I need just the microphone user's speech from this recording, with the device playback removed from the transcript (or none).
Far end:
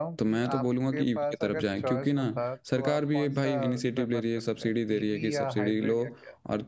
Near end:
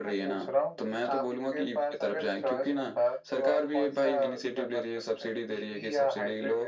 none